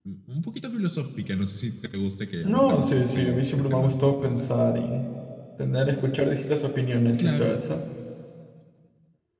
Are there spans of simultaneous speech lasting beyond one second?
Yes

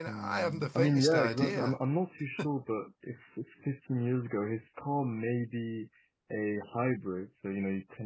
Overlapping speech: Yes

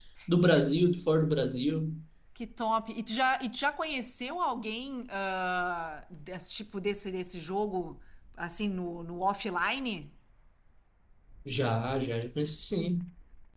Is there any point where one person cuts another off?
No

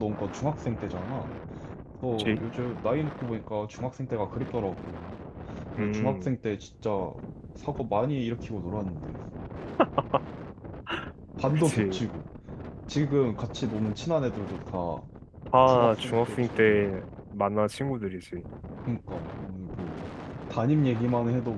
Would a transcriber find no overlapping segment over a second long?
No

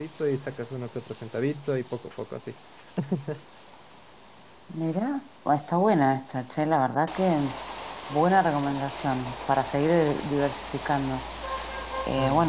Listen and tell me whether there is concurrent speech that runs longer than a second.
No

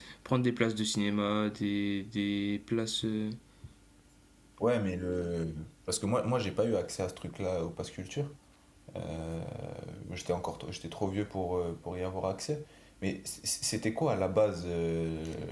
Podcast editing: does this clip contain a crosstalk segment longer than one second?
No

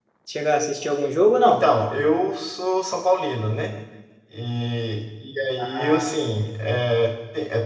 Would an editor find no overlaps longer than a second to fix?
Yes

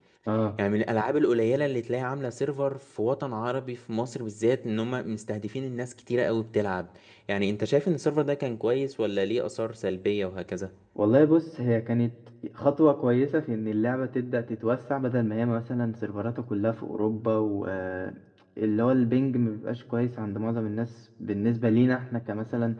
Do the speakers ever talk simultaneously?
No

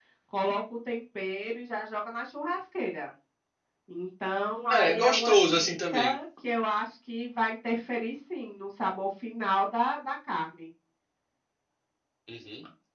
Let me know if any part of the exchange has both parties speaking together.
Yes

